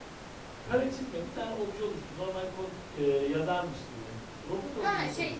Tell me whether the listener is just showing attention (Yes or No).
No